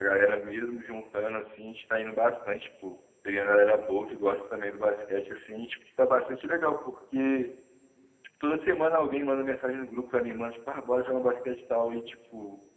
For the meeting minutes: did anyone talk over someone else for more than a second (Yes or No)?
No